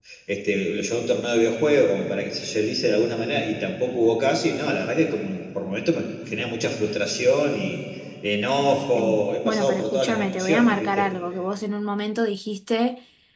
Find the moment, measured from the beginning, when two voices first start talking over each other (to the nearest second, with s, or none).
9 s